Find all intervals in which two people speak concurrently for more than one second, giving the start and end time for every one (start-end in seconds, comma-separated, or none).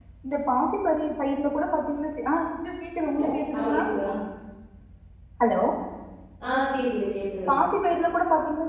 none